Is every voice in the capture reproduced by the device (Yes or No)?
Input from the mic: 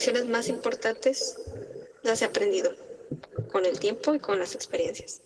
Yes